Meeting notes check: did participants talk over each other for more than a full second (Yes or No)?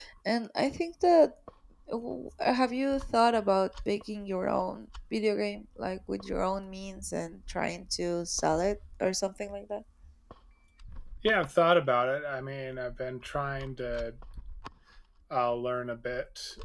No